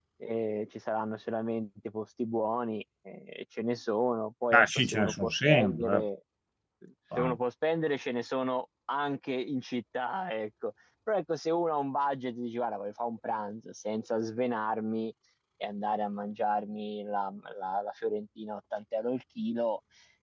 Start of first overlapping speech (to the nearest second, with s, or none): 5 s